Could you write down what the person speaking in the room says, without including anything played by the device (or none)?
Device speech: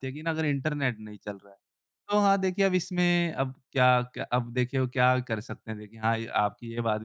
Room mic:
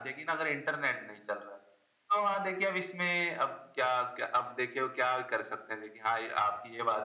none